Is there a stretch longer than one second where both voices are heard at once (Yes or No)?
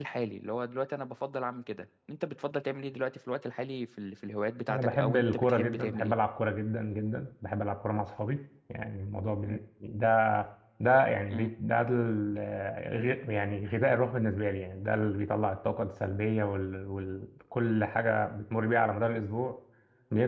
Yes